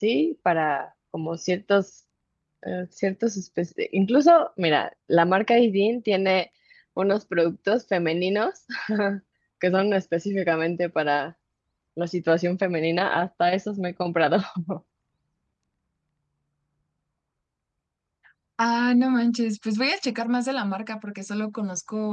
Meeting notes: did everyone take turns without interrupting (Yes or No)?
Yes